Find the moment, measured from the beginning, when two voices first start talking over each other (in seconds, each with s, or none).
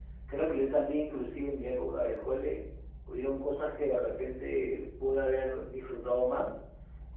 none